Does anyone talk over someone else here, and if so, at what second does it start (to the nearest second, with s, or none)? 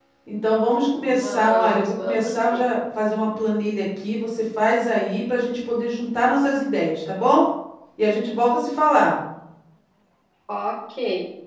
1 s